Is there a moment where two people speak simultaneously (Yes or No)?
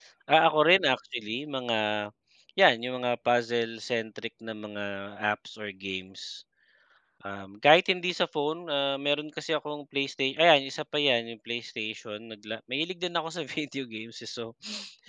No